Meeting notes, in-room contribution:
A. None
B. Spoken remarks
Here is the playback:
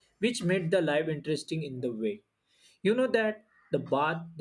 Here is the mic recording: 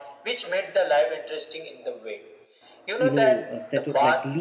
B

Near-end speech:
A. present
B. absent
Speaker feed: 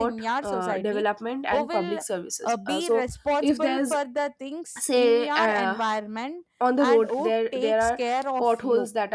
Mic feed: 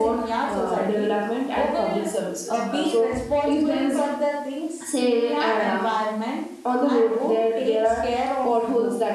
B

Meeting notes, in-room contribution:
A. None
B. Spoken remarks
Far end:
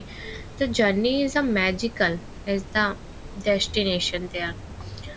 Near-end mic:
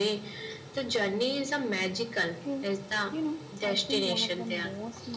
B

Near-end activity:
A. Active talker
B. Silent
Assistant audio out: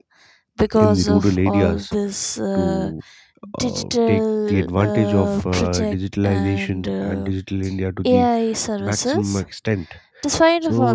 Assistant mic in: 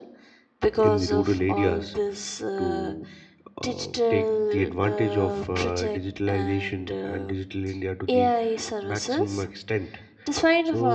B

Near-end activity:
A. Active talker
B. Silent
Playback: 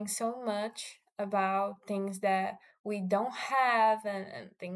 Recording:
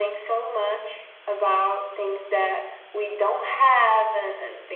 B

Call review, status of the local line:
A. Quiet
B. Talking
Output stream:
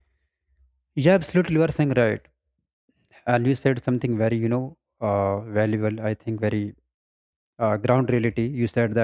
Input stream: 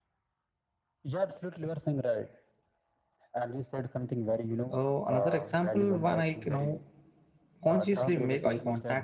B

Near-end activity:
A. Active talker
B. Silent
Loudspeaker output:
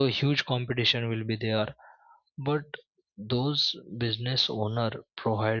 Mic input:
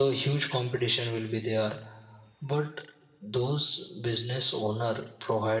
B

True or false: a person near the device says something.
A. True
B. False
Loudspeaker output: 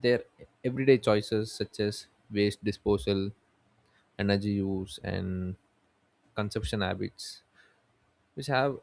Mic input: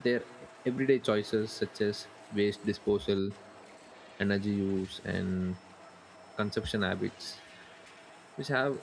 B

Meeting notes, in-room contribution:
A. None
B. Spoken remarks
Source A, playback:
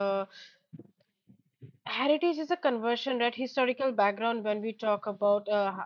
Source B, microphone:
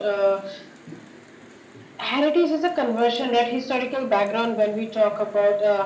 A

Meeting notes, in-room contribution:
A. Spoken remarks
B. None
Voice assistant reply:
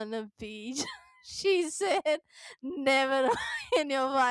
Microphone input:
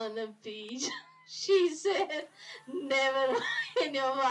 B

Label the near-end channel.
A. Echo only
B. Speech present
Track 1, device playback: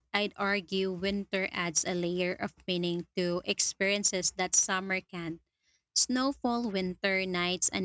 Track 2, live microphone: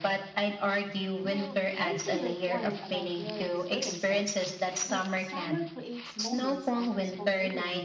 B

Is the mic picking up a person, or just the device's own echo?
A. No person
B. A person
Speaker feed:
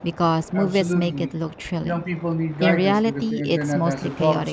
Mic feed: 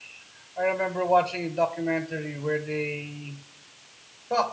B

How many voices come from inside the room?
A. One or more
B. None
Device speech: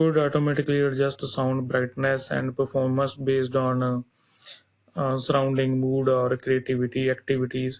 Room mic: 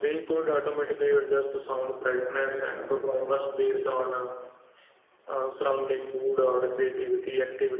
B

